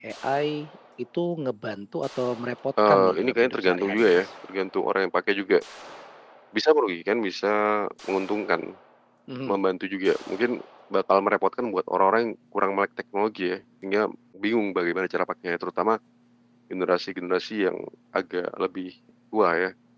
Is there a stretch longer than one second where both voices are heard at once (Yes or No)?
Yes